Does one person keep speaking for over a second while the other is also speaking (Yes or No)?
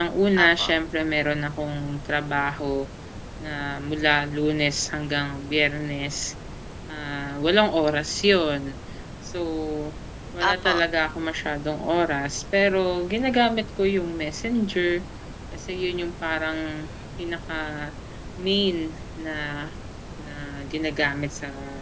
No